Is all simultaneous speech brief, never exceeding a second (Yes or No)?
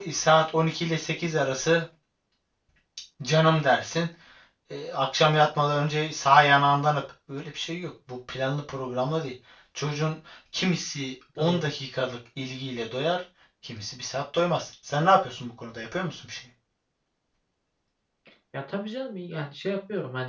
Yes